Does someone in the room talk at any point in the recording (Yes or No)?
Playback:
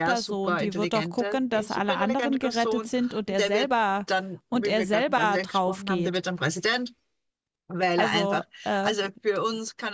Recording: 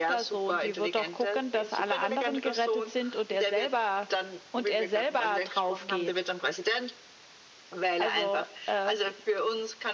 No